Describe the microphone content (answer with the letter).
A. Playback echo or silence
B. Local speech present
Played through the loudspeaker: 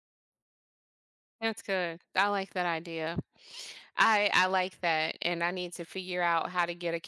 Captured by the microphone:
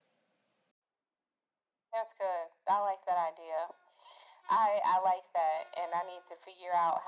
A